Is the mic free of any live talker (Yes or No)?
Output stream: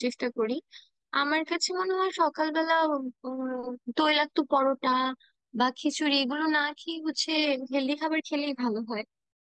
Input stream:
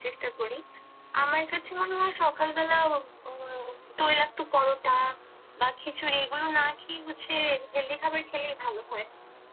Yes